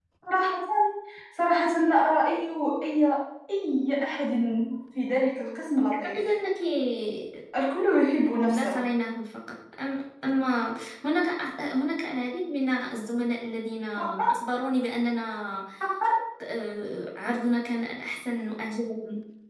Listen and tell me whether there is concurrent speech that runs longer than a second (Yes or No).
No